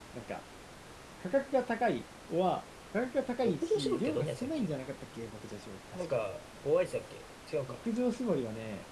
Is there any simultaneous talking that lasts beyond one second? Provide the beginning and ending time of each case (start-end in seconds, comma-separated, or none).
3.5-4.7